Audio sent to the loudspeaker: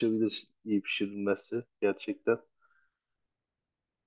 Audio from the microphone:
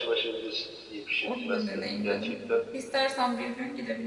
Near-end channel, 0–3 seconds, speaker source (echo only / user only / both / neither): both